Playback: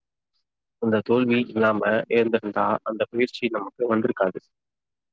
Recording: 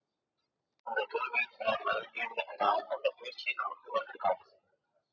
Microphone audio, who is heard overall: echo only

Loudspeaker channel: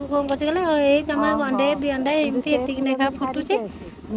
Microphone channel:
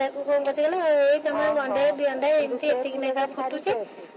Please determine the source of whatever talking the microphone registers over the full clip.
echo only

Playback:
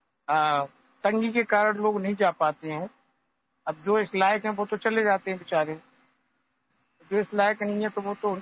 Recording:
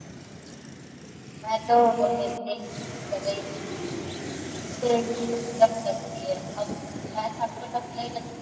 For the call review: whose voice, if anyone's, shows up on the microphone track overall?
user only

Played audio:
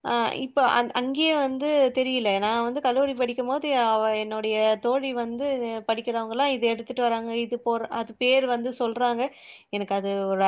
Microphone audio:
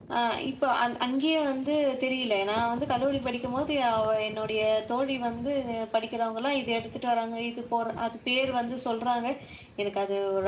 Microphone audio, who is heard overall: echo only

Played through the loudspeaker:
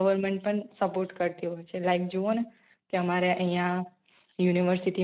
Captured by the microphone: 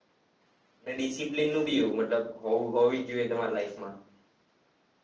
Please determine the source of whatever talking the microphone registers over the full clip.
user only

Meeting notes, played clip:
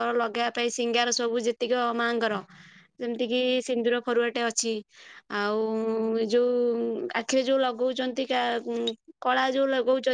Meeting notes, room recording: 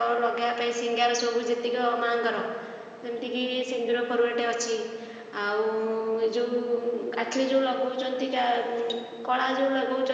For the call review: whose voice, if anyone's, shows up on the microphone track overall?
echo only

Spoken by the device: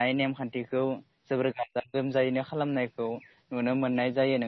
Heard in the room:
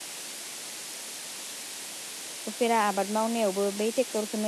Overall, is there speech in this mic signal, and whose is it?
user only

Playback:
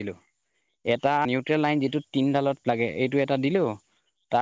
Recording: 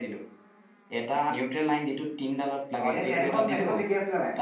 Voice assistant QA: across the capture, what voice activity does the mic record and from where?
both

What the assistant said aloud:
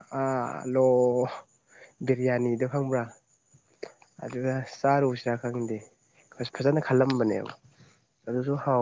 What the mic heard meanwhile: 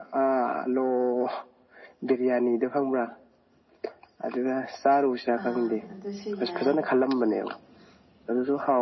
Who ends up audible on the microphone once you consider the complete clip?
both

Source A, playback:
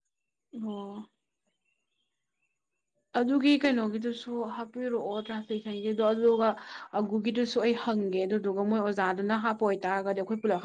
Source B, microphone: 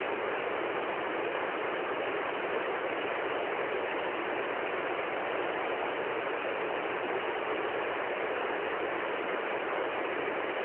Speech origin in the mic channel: neither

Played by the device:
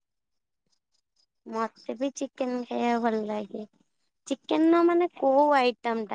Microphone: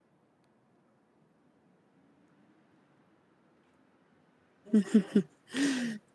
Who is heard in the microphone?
user only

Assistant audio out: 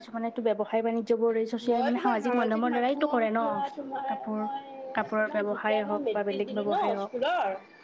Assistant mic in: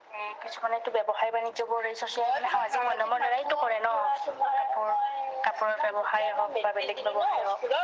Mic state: echo only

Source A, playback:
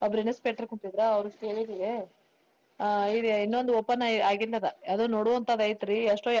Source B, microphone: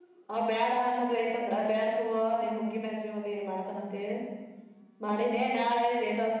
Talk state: user only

